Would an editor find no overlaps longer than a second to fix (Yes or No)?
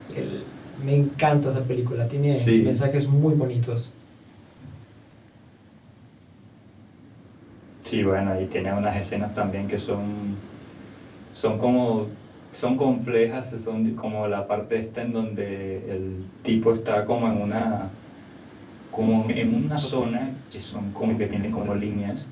Yes